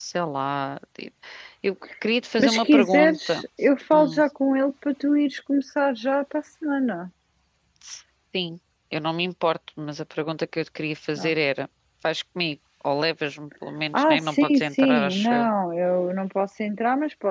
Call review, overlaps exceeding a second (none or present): present